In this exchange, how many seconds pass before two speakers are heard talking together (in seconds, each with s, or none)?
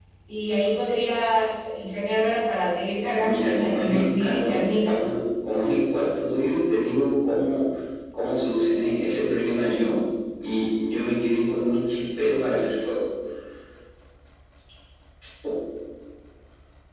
3.2 s